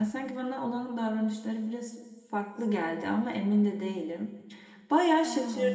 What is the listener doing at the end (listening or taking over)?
listening